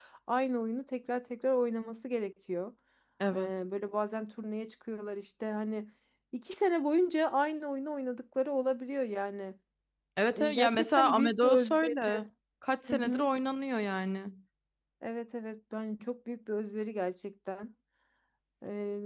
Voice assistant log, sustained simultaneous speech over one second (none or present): present